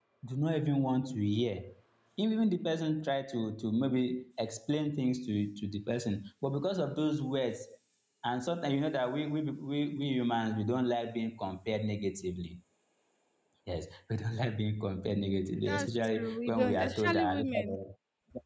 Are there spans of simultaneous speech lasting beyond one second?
Yes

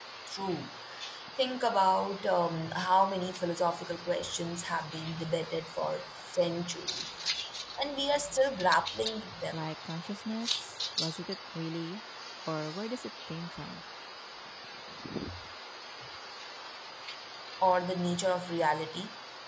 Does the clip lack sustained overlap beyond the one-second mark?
Yes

